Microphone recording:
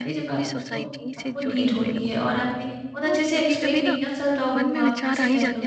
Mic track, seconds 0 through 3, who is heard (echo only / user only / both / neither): both